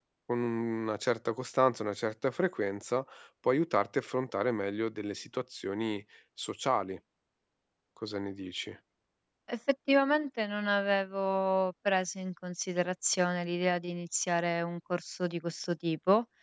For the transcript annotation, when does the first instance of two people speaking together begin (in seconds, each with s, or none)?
none